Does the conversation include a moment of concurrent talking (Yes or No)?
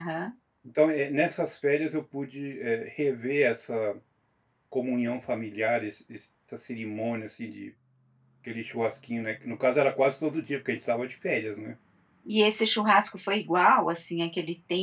No